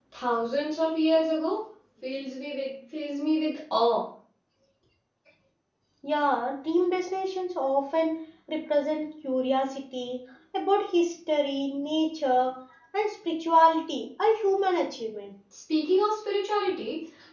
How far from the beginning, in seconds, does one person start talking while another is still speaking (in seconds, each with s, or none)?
none